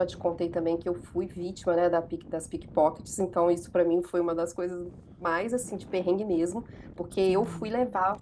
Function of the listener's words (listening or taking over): listening